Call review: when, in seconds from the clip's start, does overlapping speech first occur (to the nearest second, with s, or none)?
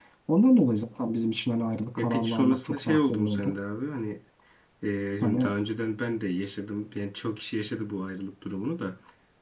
2 s